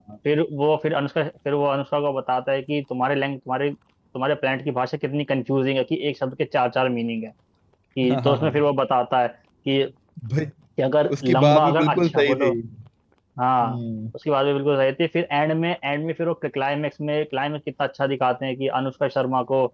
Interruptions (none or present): present